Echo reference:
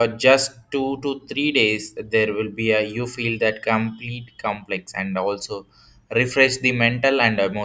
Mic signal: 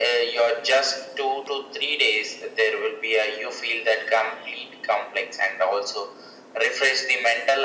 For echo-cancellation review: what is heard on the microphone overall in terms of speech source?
echo only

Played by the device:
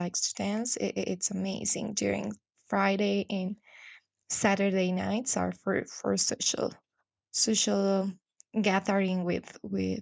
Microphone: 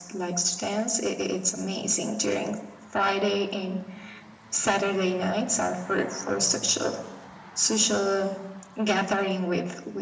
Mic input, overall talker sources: echo only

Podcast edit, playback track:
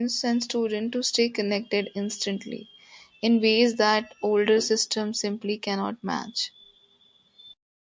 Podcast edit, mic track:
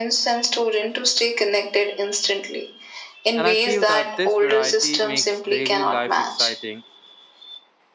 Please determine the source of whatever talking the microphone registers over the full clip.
both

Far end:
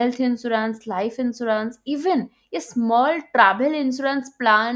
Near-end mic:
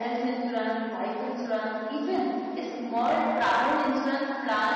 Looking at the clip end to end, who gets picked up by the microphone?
echo only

